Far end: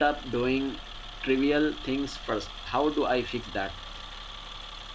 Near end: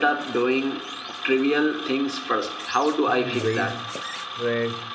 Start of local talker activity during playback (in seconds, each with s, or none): 3.0 s